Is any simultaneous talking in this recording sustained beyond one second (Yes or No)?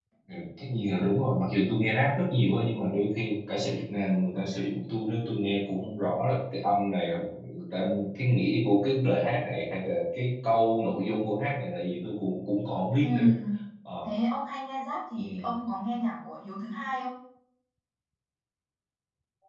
No